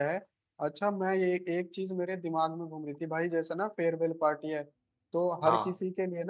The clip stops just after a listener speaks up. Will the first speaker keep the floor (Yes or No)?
Yes